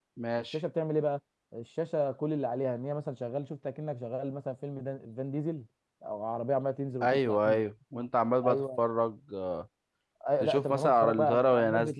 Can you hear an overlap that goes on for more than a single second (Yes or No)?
Yes